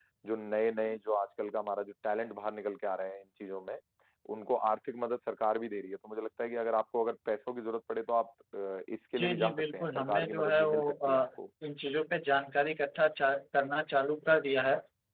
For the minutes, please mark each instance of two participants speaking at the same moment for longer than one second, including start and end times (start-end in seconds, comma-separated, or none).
9.2-11.3